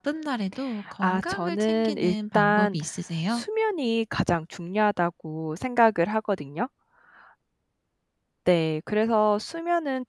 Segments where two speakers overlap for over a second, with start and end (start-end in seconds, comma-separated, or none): 1.0-2.8